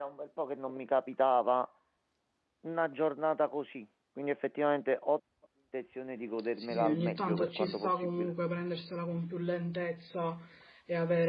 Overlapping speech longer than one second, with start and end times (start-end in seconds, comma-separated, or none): 6.6-8.3